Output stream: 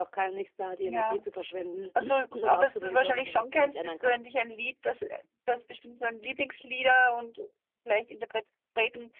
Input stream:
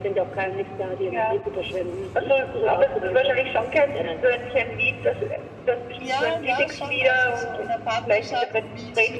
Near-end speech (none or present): present